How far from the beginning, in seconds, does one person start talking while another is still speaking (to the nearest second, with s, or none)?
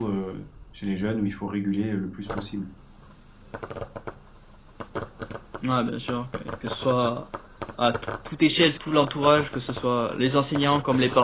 none